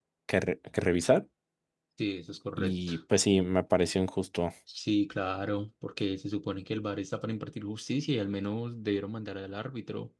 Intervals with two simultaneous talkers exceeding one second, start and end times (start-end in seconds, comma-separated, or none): none